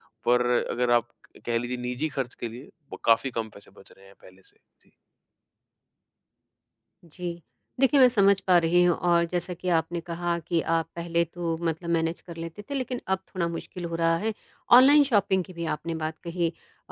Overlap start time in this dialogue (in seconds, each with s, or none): none